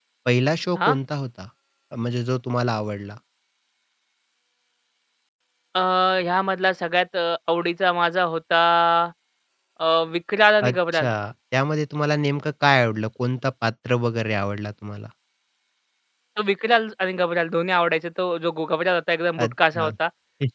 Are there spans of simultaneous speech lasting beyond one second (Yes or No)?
No